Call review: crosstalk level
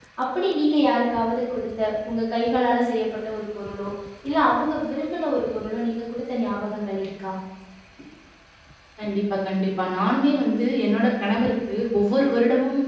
none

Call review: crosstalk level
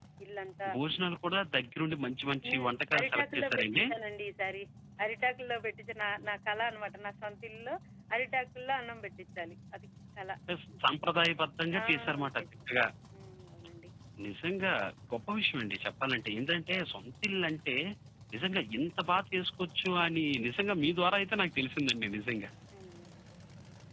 present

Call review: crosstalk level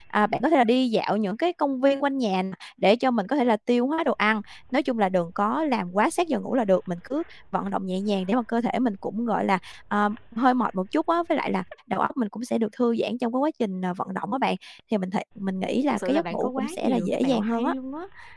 present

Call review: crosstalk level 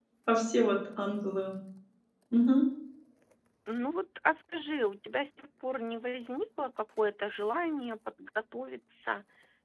none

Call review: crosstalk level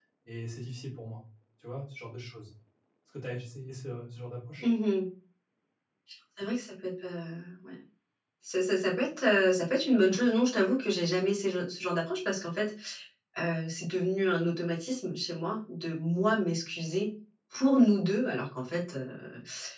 none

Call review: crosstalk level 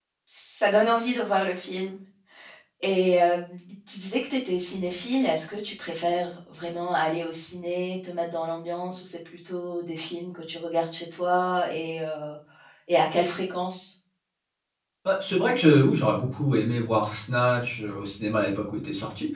none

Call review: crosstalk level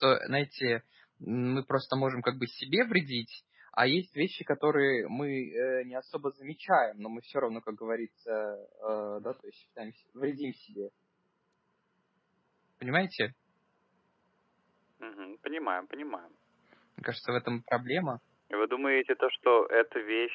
none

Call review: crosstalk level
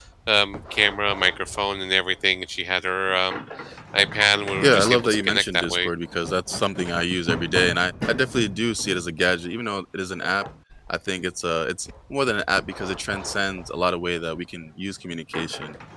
present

